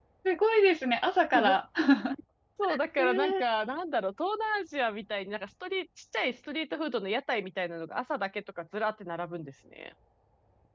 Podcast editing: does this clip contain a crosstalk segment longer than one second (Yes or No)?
No